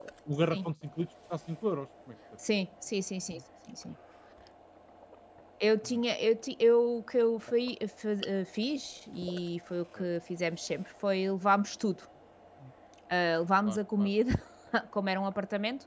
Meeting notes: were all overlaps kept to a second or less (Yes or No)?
Yes